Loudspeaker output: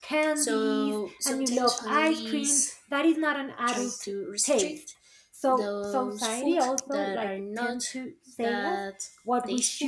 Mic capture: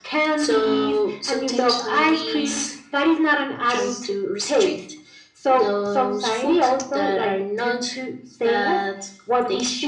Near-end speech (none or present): none